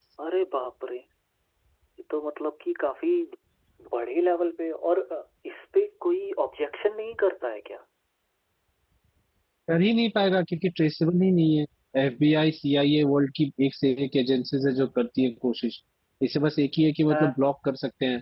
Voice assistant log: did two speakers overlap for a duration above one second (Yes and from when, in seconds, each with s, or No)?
No